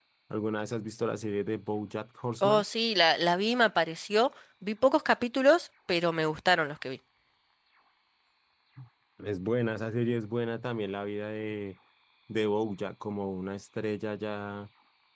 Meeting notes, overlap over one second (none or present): none